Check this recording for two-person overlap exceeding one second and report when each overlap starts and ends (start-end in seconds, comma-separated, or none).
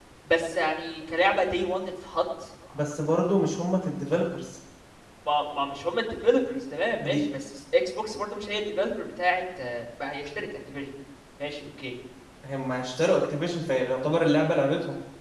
none